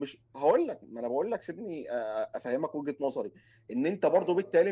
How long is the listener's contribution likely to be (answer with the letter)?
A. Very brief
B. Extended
A